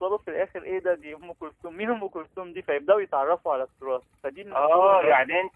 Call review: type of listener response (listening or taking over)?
taking over